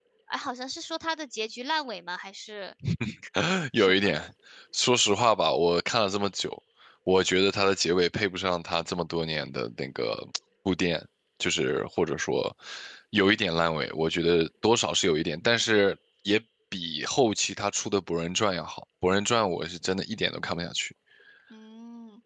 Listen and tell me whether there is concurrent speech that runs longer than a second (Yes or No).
No